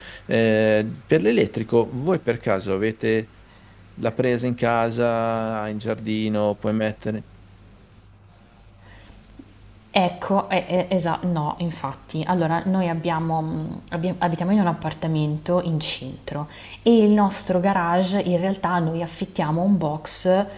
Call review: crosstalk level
none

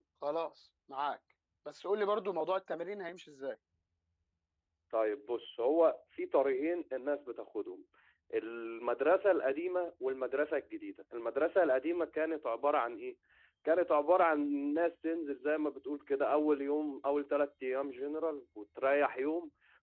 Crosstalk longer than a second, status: none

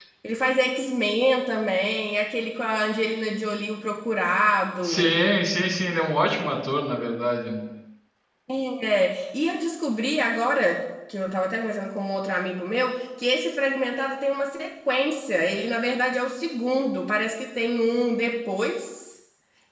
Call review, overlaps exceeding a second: none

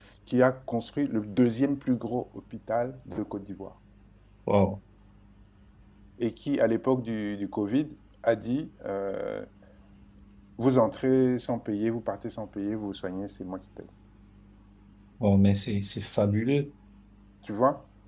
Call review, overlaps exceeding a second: none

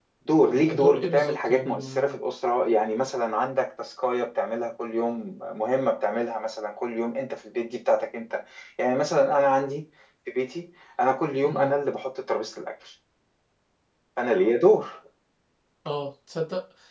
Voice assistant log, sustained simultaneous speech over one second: present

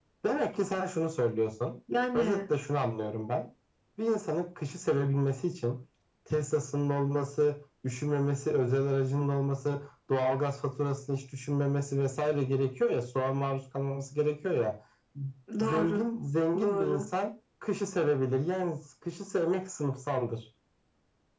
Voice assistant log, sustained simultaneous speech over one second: none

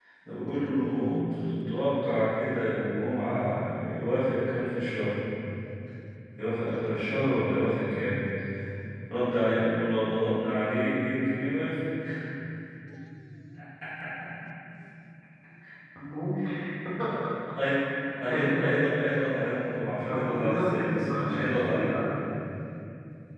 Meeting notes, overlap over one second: present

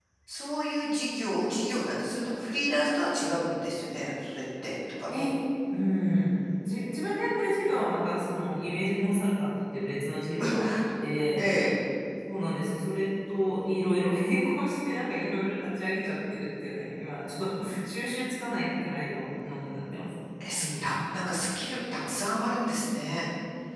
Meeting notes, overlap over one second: none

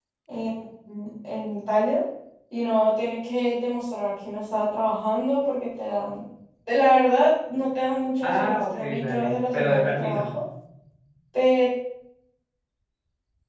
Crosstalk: present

